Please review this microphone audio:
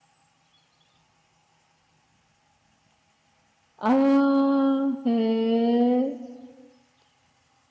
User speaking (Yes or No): Yes